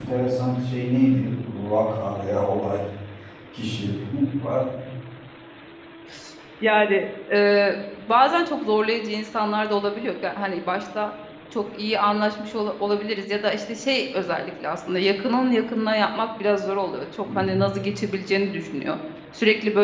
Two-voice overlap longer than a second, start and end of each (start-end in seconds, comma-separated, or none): none